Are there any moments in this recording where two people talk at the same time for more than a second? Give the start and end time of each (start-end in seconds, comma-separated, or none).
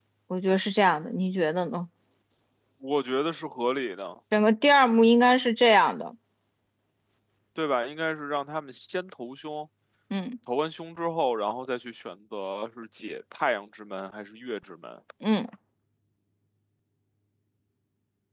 none